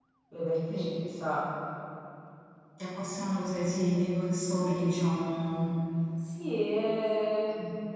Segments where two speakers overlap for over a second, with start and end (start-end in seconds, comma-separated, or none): none